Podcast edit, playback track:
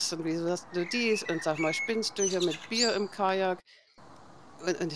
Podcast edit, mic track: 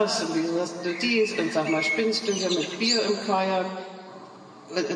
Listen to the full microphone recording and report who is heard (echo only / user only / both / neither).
echo only